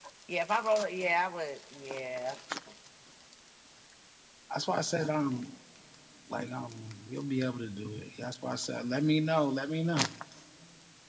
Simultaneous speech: No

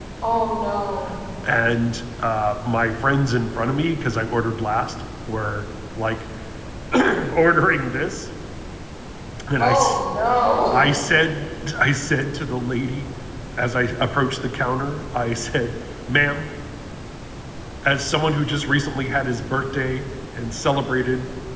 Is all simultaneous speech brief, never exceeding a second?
Yes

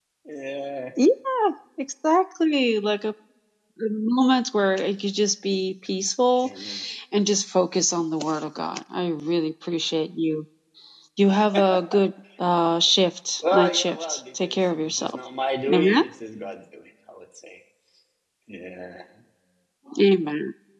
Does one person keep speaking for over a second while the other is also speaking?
Yes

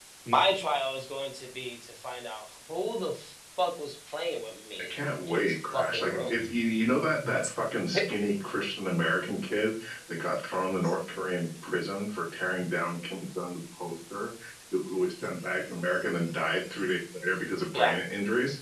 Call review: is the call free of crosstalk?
No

